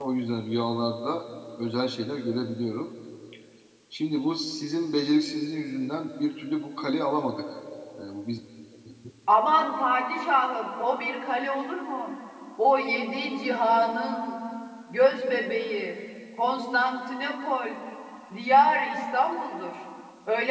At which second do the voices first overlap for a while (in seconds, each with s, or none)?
none